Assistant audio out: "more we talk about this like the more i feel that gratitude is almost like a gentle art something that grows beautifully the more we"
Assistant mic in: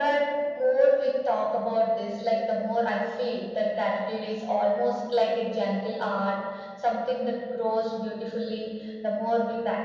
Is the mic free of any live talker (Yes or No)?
Yes